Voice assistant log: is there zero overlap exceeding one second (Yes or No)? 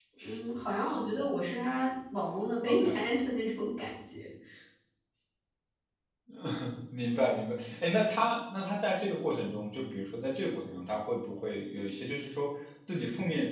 Yes